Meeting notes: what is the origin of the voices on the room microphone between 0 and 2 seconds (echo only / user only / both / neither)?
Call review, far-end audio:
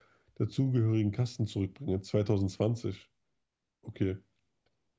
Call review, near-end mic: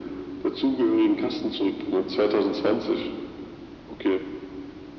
echo only